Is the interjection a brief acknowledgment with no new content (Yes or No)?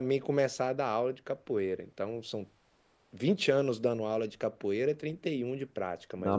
No